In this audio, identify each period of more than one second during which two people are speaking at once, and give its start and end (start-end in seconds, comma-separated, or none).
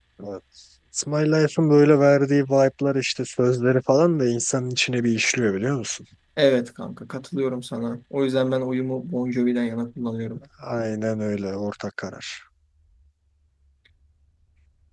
none